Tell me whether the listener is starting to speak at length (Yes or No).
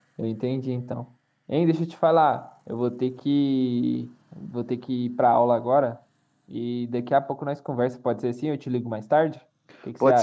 Yes